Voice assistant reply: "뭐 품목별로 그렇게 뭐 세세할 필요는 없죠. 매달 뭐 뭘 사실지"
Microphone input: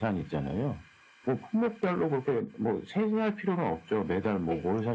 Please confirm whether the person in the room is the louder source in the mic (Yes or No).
No